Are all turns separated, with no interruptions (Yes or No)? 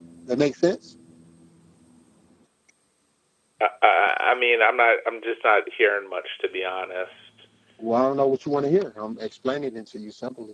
Yes